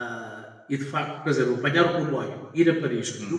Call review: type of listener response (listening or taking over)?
listening